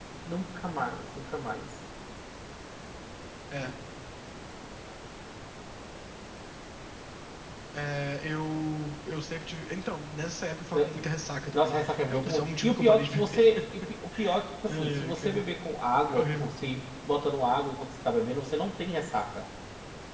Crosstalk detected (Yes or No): Yes